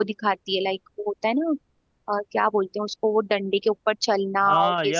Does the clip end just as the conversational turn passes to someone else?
Yes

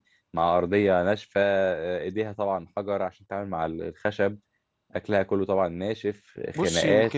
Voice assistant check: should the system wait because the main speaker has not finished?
No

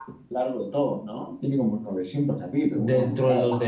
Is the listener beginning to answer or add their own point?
Yes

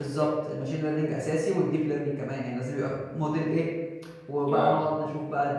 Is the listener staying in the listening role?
Yes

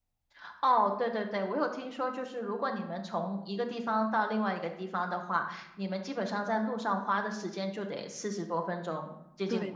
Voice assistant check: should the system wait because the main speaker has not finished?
No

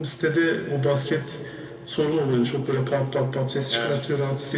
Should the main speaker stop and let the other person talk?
No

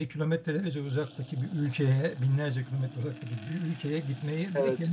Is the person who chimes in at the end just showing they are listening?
Yes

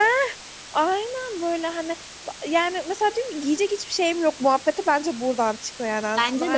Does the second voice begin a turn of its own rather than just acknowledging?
Yes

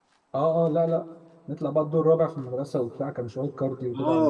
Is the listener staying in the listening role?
No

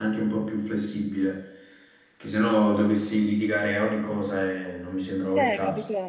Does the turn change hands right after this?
Yes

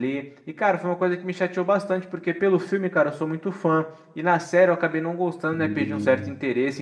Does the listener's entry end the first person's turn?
No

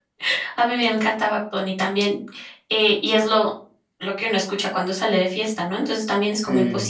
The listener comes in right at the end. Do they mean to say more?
No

